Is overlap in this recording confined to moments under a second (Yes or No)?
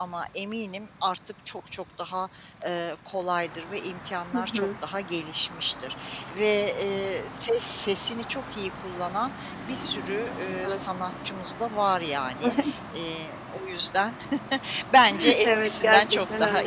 No